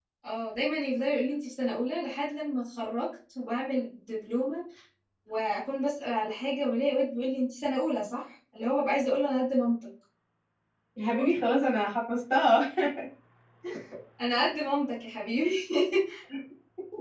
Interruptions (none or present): none